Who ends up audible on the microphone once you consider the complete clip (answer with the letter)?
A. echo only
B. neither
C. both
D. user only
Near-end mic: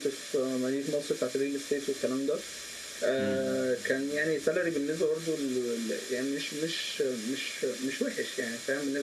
C